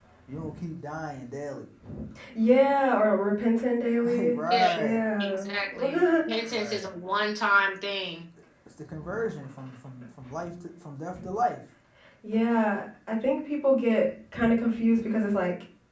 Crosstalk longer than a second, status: present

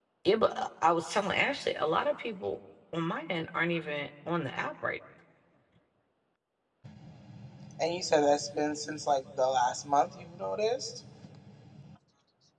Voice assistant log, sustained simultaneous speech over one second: none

